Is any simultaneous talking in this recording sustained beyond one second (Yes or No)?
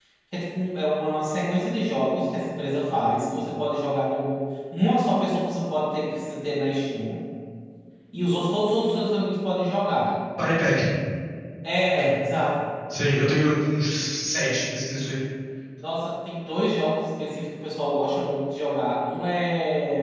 No